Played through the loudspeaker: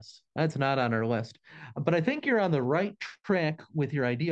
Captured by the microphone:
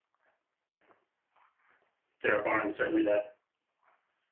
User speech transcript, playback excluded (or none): there are barns certainly that